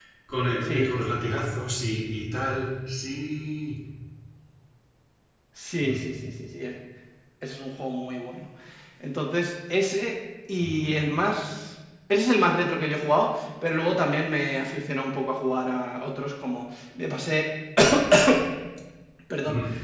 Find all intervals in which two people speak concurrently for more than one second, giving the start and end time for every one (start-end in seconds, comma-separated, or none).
none